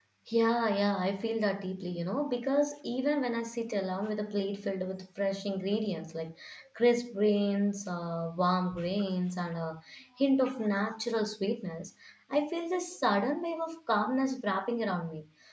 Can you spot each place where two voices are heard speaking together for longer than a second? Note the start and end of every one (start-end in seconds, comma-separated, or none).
none